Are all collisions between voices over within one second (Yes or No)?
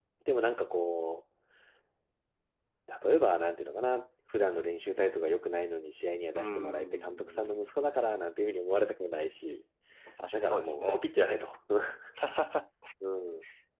No